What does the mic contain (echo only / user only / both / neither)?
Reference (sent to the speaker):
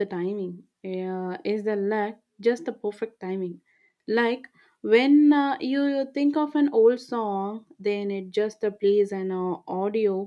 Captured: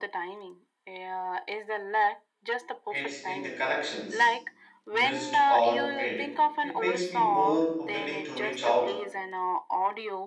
both